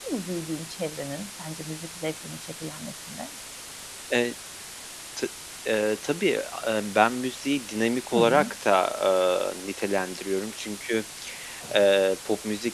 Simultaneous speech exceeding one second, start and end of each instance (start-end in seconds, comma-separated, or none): none